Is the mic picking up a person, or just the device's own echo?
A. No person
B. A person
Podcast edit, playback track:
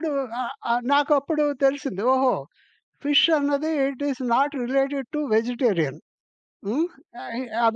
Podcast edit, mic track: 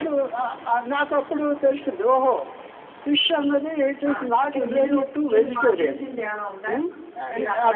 B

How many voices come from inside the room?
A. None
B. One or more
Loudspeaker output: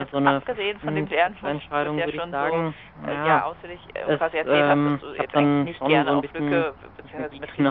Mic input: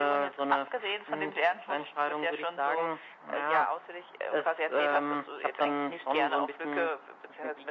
A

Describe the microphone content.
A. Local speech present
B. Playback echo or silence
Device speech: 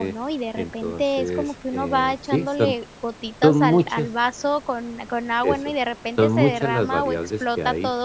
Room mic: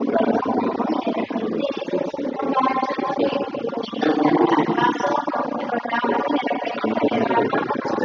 B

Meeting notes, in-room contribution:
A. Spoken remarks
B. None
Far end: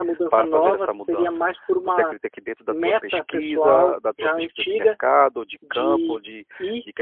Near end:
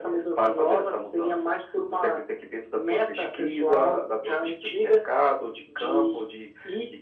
B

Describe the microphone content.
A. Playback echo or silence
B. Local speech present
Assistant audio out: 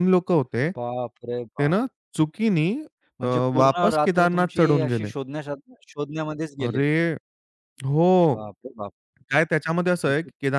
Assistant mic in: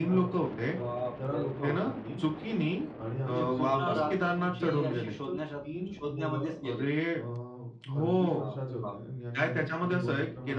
B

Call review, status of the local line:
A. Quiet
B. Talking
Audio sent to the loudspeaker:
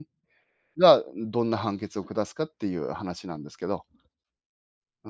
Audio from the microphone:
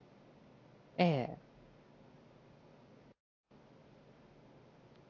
B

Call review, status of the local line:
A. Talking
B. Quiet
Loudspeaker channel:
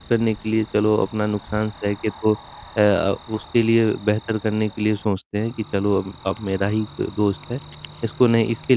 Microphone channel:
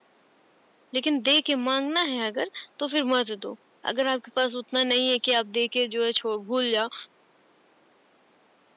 A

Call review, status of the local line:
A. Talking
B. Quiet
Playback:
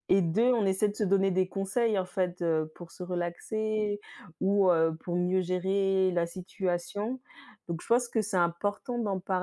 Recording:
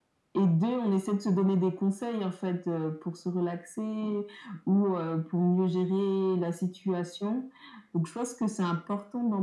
B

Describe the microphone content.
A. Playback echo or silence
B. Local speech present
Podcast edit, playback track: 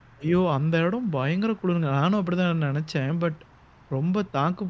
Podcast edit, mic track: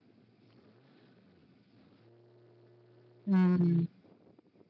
B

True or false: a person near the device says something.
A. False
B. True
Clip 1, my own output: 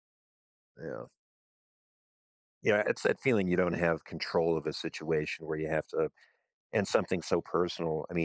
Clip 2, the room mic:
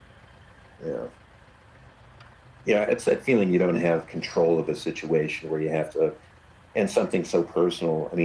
A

